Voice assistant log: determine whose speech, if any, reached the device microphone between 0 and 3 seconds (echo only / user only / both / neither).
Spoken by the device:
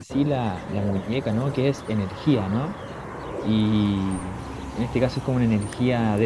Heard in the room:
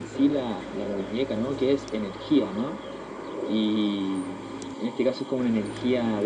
echo only